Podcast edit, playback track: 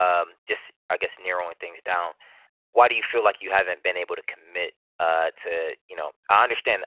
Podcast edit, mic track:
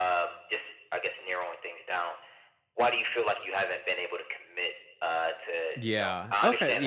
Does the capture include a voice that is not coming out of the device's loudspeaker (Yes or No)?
Yes